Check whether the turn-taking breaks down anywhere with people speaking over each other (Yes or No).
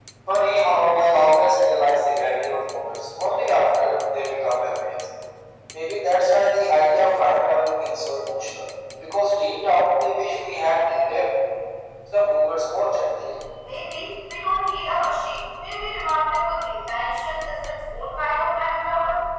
No